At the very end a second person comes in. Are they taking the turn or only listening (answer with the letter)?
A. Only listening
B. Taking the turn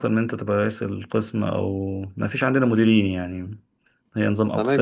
B